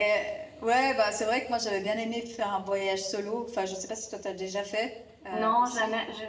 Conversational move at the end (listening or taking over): taking over